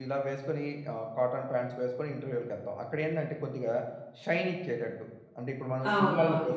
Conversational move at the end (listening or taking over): taking over